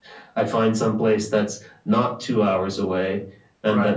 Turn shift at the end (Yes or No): No